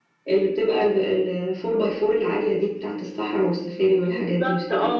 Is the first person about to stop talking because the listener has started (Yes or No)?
Yes